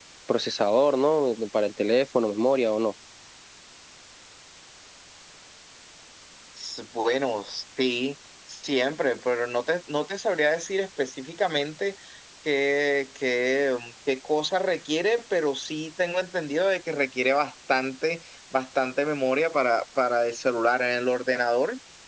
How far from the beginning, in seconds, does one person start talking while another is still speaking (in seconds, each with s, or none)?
none